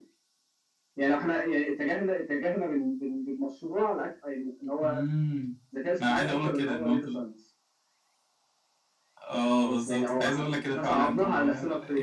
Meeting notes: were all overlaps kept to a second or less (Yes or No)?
No